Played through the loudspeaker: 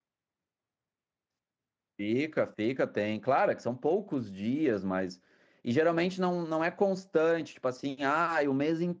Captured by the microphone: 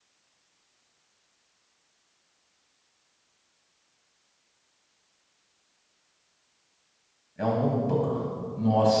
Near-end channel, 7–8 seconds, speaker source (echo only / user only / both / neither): user only